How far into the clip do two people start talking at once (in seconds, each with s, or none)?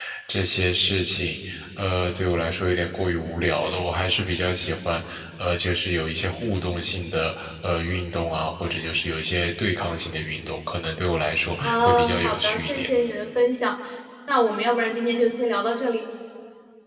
11.6 s